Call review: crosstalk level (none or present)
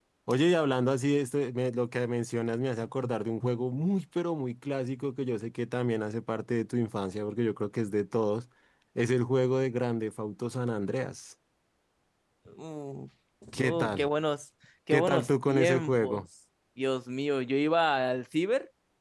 present